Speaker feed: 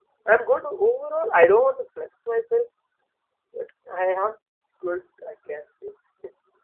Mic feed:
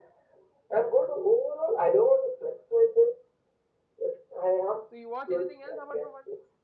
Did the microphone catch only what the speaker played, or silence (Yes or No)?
No